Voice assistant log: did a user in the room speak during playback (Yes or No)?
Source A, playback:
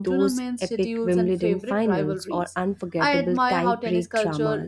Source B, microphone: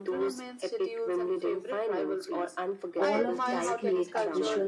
Yes